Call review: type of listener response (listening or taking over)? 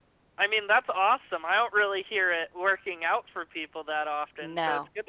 listening